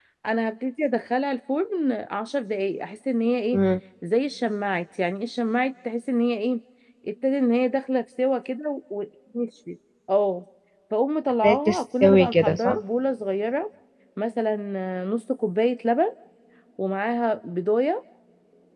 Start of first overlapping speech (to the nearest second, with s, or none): 11 s